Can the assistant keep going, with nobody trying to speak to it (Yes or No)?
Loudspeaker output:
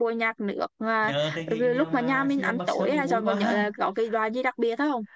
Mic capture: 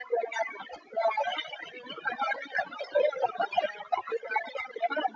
Yes